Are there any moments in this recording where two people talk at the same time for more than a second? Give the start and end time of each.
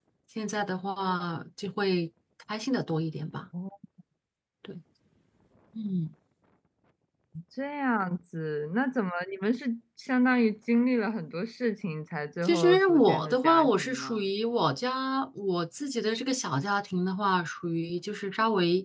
12.4-14.2

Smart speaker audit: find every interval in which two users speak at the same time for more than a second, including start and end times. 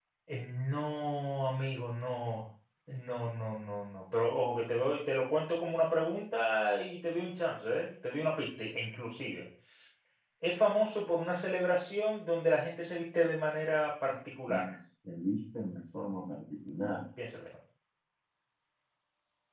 none

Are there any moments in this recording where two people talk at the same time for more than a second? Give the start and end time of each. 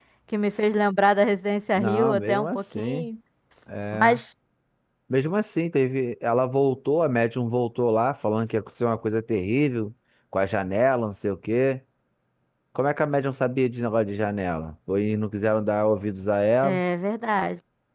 1.7-3.1

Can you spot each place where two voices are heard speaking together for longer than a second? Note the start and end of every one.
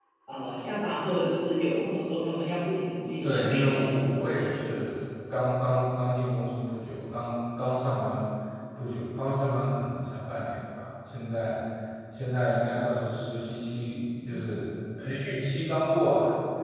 3.2-4.6

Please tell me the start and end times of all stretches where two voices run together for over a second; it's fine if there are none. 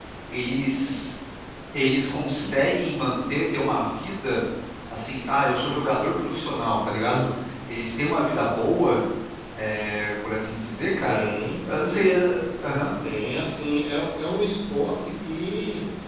none

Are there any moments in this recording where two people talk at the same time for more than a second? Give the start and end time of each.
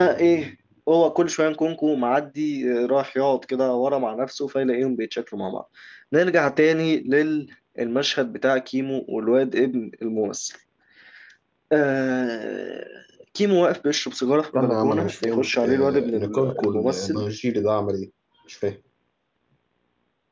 14.5-17.2

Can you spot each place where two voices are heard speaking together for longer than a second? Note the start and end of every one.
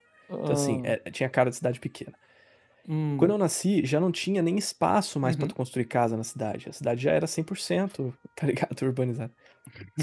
none

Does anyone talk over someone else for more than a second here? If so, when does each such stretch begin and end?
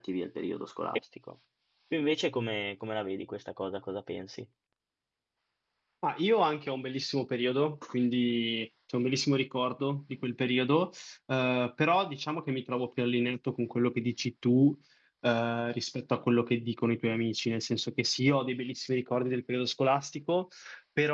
none

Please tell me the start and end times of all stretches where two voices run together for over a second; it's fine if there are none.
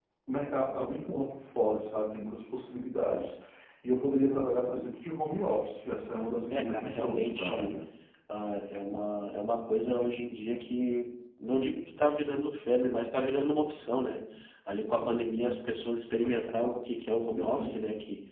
6.5-7.7

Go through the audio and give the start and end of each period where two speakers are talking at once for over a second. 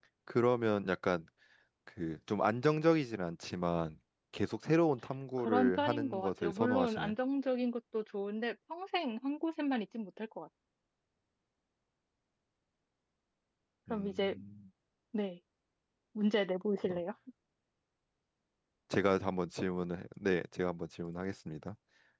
5.4-7.1

